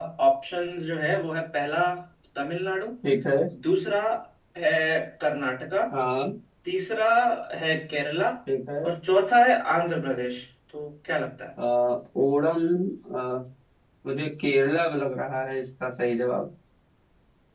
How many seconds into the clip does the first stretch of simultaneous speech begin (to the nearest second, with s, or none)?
none